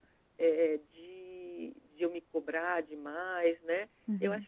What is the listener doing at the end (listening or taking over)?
listening